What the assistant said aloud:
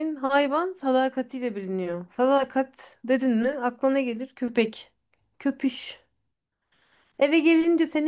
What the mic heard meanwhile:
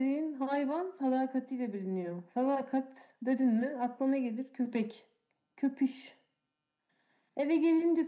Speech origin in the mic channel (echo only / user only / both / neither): echo only